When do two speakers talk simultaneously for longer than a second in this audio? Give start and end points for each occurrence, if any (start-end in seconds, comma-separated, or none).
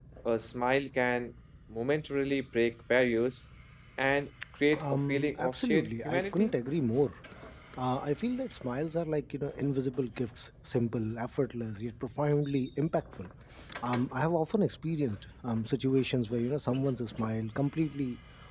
4.8-6.5